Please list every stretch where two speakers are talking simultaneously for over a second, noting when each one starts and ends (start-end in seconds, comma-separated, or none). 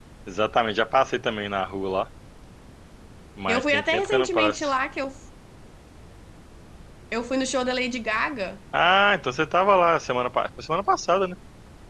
3.5-4.7